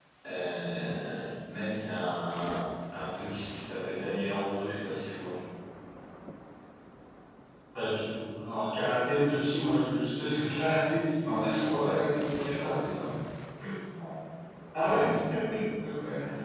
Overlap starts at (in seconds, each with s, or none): 11.2 s